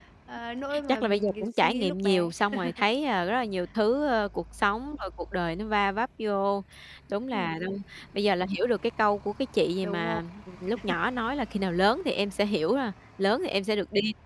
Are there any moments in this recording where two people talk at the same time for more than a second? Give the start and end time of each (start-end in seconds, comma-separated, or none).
0.9-2.3